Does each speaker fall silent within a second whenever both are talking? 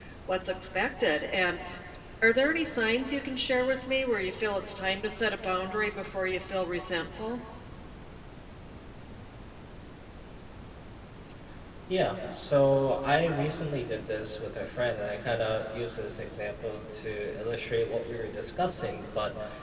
Yes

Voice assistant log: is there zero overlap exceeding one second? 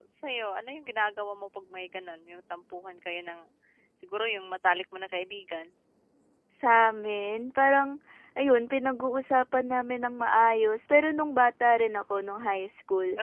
Yes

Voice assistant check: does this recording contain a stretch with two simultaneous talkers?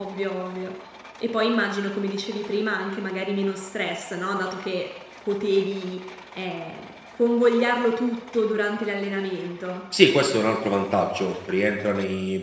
No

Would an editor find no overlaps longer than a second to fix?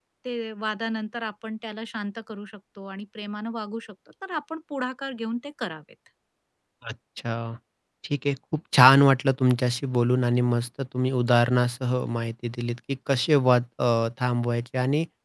Yes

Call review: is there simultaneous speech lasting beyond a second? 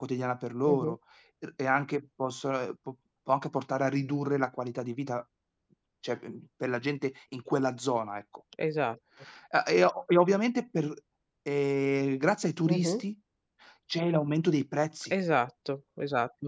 No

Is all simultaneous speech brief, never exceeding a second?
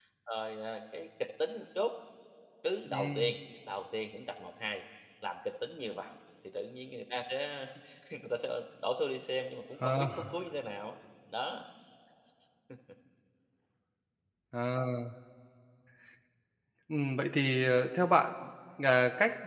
Yes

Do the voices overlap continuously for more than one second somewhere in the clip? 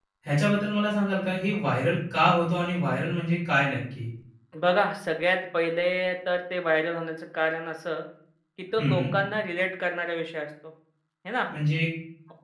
No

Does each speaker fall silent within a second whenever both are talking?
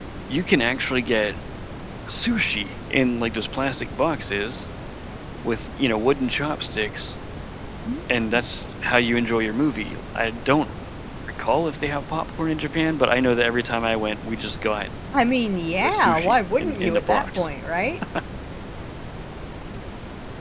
No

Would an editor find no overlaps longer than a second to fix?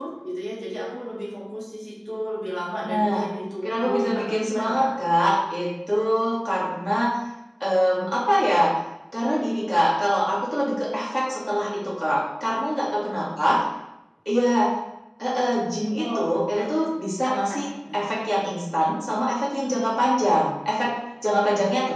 No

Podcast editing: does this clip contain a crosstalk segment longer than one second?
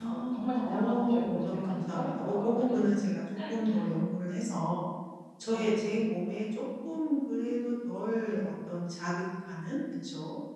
Yes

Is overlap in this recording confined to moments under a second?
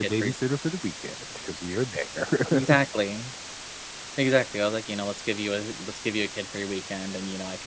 Yes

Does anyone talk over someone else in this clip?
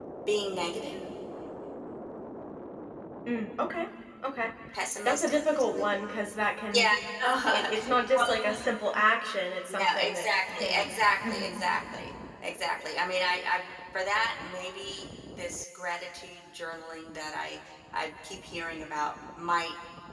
Yes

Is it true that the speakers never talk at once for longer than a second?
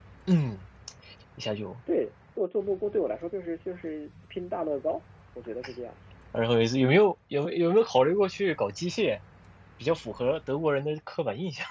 Yes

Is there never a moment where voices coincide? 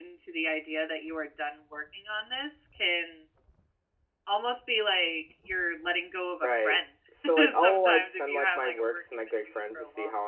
No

